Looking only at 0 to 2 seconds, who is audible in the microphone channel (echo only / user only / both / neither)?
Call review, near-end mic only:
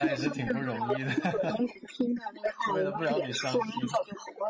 both